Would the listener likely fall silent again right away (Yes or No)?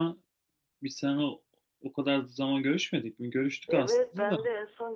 No